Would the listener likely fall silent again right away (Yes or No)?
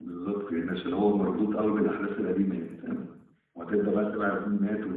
Yes